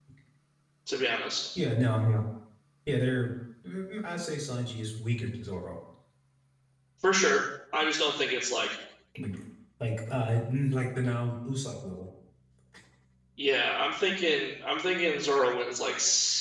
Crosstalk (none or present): none